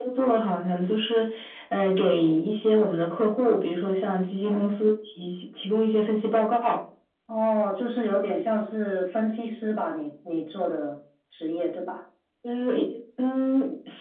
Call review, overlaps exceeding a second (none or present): none